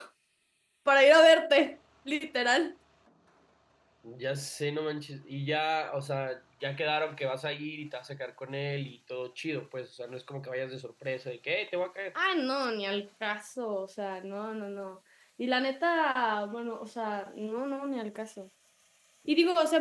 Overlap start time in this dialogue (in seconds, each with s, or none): none